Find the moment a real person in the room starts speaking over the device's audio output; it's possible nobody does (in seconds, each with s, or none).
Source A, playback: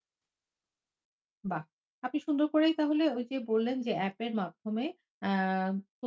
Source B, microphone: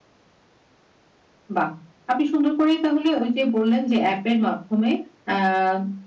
none